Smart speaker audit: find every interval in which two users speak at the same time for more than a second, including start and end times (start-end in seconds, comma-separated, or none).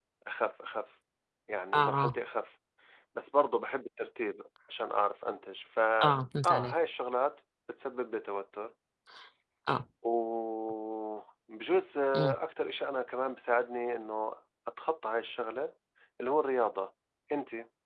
none